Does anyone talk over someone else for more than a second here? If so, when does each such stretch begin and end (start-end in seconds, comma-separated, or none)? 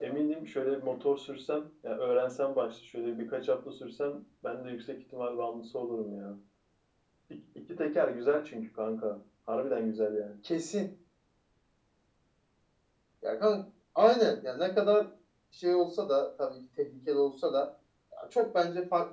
none